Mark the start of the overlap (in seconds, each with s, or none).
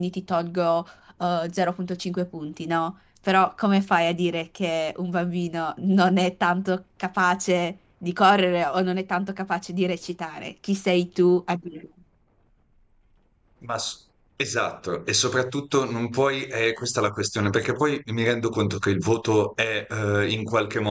none